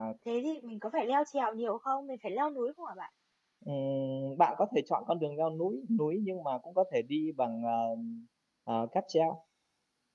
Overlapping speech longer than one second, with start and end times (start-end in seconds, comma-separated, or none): none